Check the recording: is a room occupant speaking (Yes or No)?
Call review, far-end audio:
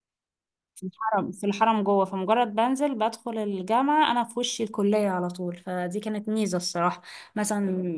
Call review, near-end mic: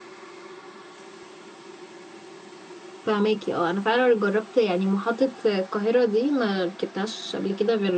Yes